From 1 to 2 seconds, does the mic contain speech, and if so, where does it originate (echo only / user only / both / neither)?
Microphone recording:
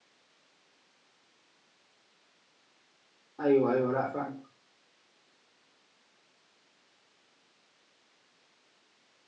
neither